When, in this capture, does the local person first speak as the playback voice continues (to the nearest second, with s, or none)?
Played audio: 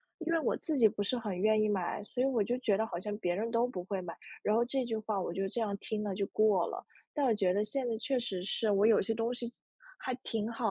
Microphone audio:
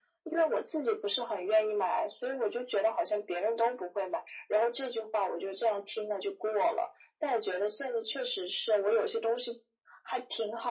none